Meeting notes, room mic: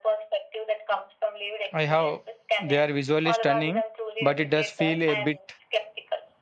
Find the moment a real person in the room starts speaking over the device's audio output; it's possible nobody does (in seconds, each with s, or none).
1.7 s